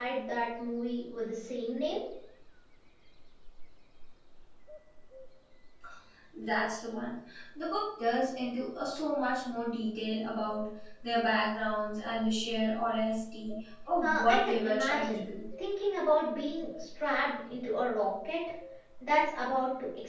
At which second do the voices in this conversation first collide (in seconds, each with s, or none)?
14.0 s